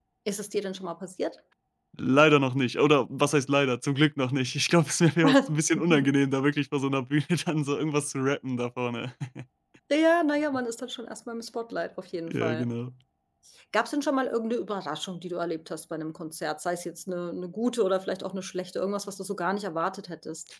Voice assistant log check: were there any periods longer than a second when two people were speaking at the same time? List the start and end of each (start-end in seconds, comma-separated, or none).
none